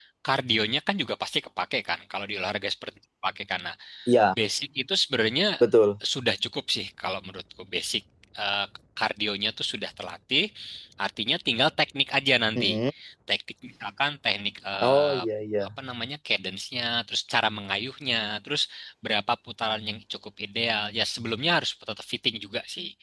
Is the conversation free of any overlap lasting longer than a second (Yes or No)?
Yes